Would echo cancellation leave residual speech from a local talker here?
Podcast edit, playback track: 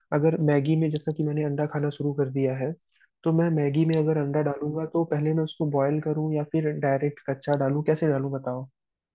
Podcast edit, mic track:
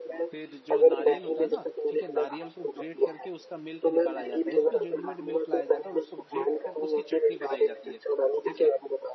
Yes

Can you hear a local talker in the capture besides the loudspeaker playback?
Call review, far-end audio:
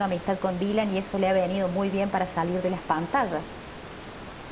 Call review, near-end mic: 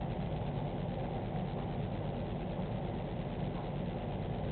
No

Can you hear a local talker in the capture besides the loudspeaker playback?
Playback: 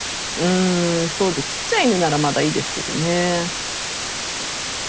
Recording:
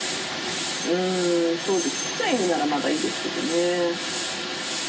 No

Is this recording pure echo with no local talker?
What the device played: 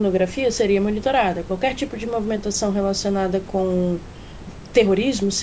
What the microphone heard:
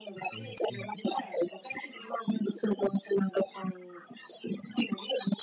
No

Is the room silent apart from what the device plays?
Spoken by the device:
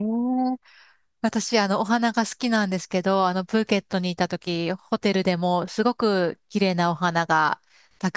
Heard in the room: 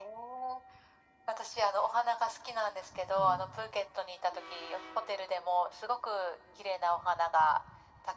No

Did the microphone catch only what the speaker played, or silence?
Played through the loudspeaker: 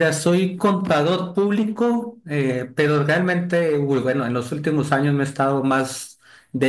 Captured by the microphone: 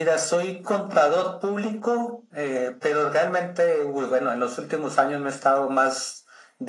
Yes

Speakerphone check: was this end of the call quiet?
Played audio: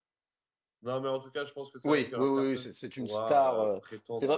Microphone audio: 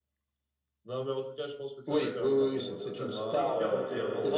No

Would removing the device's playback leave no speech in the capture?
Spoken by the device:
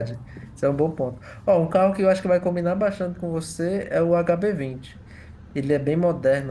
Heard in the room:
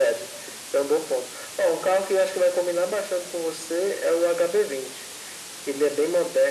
Yes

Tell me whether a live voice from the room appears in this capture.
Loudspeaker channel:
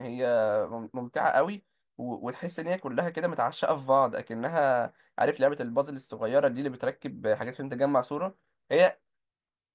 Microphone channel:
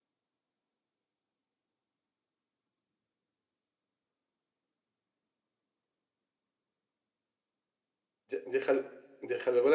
Yes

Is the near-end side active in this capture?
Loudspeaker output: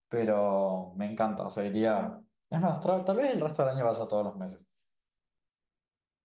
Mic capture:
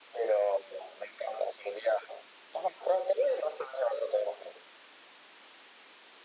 No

